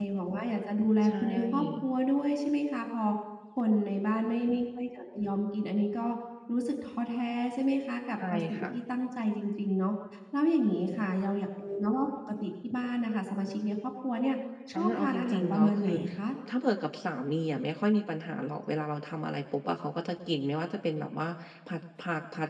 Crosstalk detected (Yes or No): Yes